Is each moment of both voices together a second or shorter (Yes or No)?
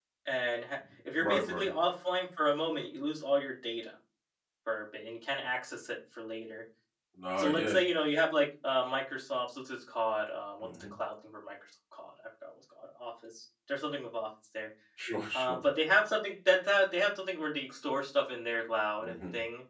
Yes